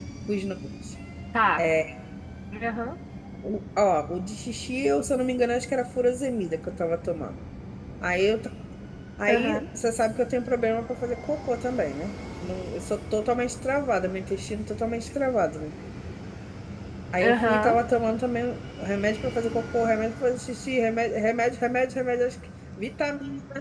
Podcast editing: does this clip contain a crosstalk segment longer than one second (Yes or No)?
No